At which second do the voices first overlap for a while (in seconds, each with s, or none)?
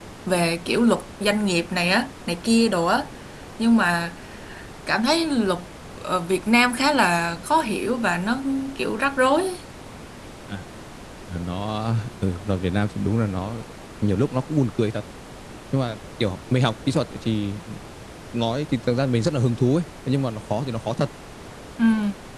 none